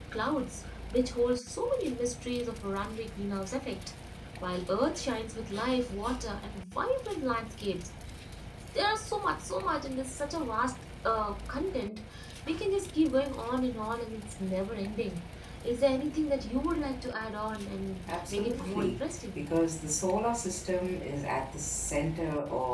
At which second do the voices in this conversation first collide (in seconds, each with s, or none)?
18.0 s